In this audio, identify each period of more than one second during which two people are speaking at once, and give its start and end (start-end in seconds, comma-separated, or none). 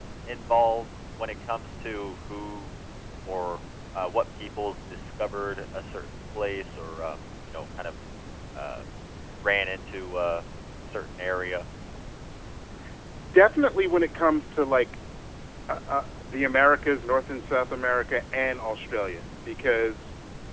none